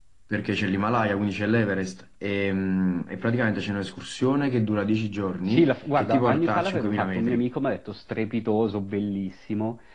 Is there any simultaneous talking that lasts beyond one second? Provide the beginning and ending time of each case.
5.5-7.5

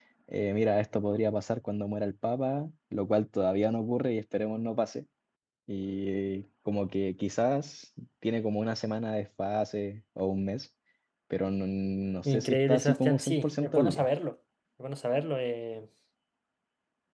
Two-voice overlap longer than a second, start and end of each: 12.2-14.1

